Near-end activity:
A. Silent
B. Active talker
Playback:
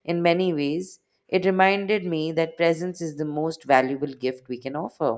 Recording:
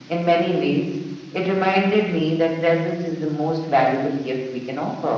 A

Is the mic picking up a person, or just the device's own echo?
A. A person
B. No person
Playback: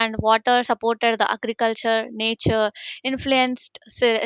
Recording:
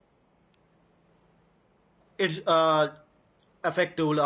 A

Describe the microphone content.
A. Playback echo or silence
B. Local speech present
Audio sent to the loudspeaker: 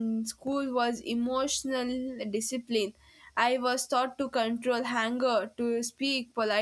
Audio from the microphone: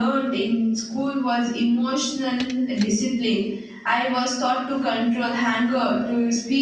A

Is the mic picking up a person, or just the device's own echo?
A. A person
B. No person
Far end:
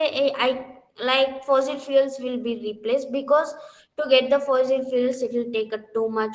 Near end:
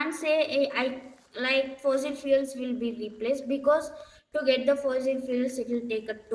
B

